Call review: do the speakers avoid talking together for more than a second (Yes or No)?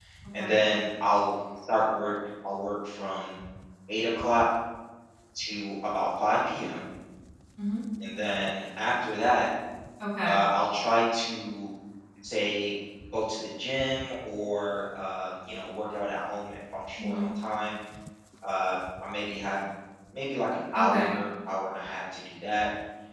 Yes